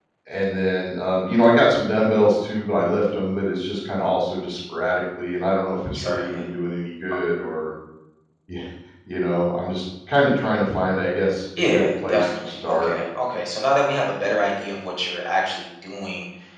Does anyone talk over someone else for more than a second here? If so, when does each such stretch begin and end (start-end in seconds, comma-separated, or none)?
11.6-12.9